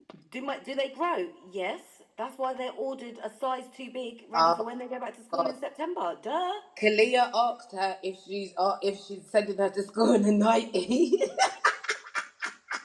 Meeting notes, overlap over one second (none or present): none